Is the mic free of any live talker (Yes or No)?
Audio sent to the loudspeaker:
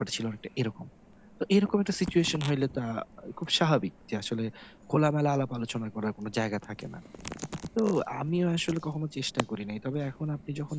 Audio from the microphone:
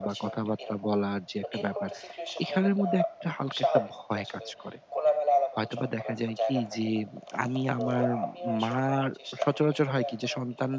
No